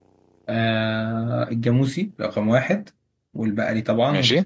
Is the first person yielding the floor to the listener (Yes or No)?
No